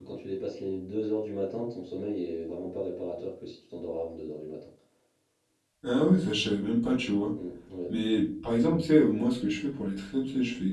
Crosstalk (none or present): none